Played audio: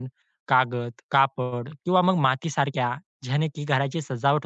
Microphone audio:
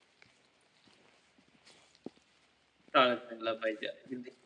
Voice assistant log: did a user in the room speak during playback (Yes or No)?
Yes